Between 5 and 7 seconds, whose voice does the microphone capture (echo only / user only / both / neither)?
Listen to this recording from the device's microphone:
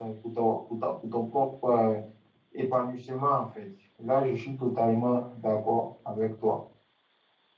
user only